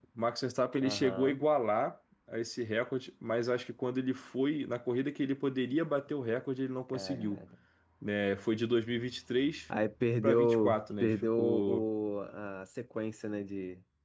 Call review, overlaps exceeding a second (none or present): present